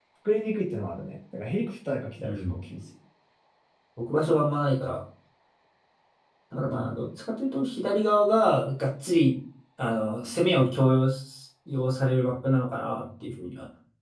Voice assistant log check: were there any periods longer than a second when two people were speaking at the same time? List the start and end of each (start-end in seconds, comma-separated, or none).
none